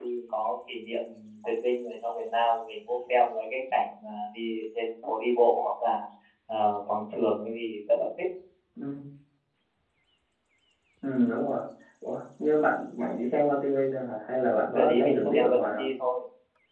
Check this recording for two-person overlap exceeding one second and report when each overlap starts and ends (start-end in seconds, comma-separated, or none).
14.6-15.9